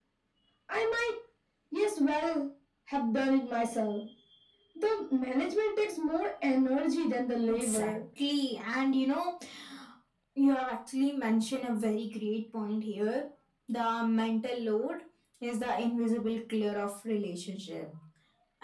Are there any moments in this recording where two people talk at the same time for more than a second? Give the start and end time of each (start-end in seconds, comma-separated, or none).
none